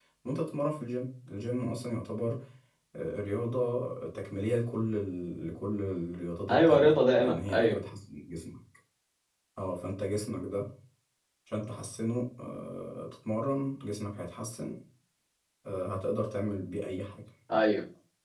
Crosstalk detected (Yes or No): Yes